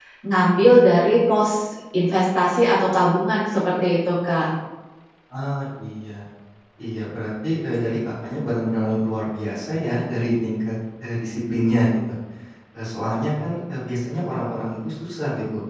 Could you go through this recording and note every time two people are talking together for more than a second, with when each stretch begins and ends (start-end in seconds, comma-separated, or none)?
none